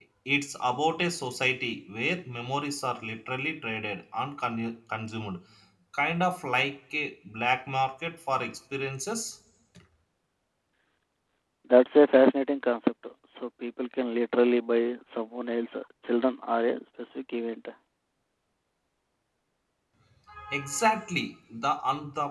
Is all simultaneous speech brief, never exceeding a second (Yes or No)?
Yes